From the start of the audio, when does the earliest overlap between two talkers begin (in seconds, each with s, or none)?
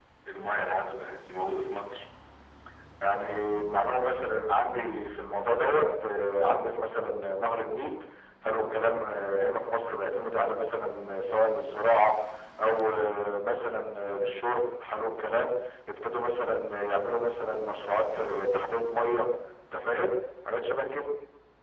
none